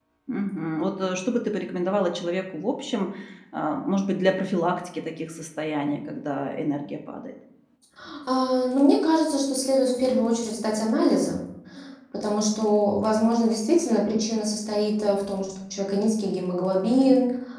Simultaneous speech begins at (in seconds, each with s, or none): none